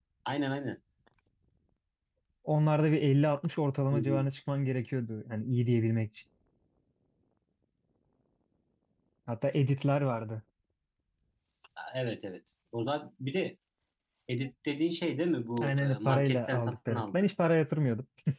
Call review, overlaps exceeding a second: present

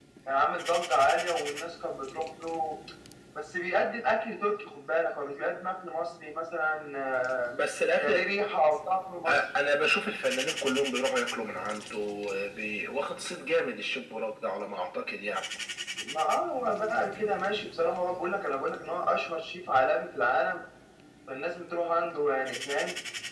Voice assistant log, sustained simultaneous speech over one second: none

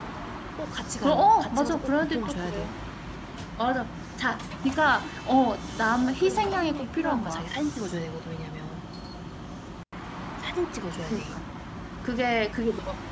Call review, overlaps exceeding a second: present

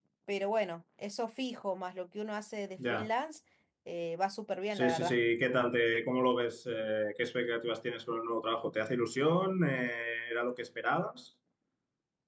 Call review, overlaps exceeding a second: none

